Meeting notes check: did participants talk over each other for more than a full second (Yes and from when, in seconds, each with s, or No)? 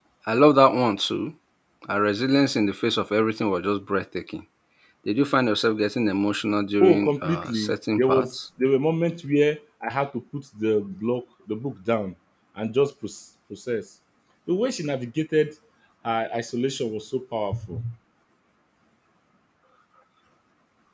Yes, from 6.8 s